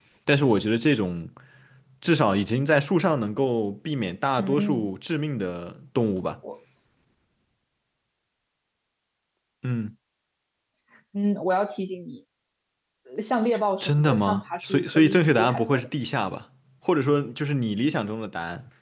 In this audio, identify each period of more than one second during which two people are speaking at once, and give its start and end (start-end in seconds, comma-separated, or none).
13.8-15.9